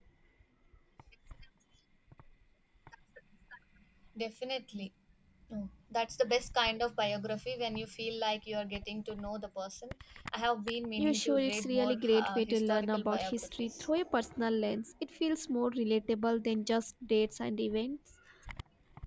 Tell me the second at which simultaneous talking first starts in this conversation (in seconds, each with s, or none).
11.0 s